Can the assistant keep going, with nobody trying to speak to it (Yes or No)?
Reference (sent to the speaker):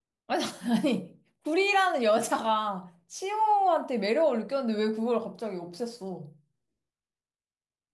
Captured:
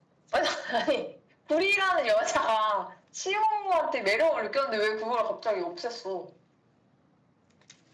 Yes